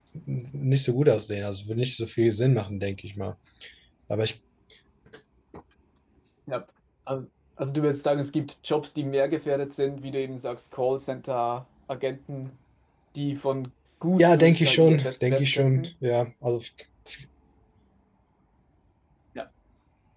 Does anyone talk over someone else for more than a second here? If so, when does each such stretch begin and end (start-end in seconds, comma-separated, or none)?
14.2-15.9